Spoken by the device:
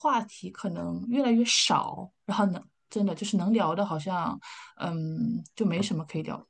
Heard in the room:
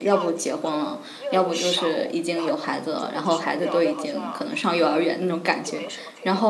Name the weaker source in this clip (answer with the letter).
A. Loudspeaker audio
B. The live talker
A